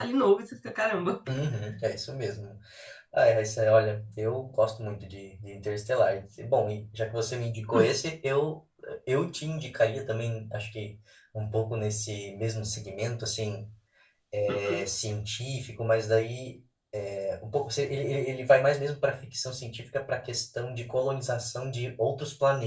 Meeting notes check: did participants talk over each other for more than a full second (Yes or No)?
No